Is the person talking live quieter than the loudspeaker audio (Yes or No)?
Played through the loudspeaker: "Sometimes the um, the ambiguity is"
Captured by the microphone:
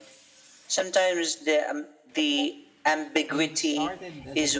Yes